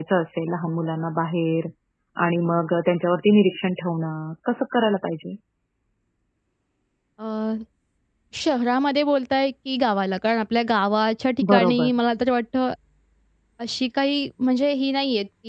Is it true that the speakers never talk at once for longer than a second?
Yes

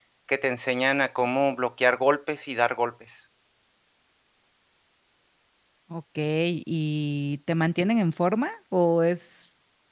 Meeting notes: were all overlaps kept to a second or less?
Yes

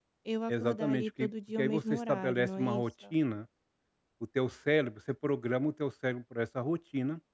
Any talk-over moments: Yes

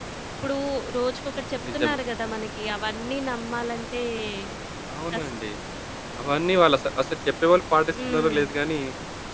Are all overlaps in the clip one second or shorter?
Yes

